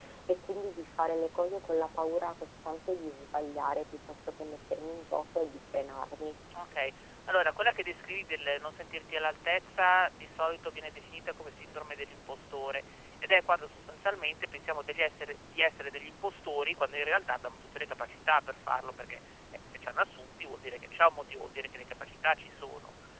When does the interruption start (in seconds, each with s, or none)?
none